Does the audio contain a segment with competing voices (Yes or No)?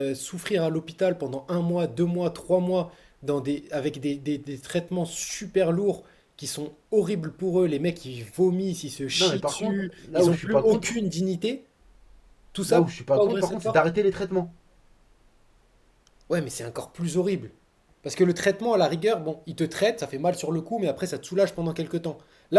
Yes